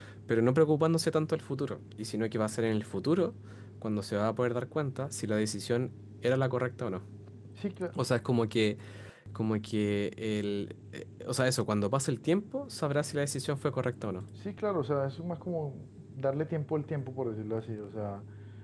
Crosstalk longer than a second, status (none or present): none